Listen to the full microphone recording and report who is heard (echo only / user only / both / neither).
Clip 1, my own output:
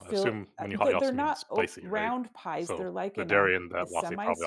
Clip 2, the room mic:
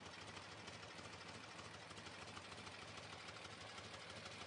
neither